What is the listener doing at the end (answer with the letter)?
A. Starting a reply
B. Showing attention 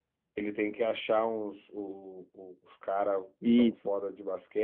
B